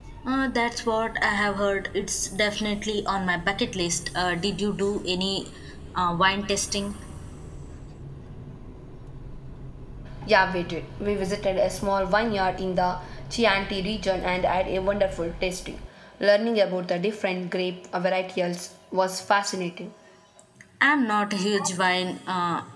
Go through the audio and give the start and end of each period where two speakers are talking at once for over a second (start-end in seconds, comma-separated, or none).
none